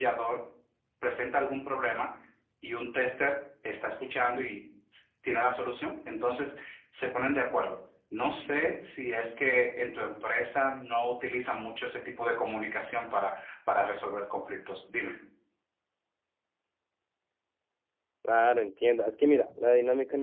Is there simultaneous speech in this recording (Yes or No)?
No